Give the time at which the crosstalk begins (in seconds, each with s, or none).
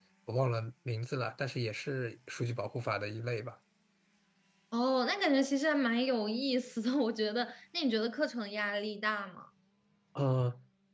none